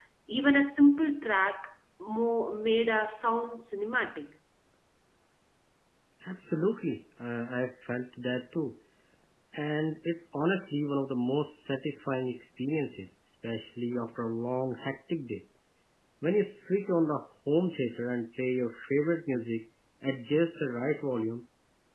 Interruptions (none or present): none